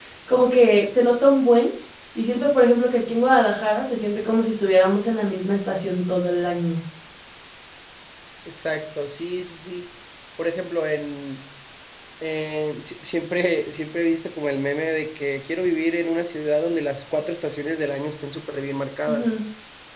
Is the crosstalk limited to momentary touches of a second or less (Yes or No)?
Yes